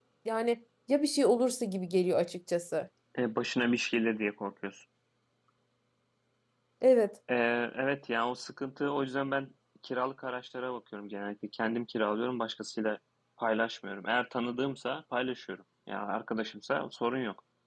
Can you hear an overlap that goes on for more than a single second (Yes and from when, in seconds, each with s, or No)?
No